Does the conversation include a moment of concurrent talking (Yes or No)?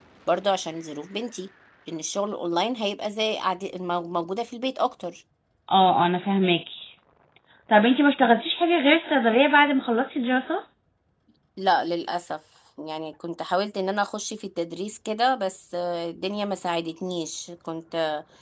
No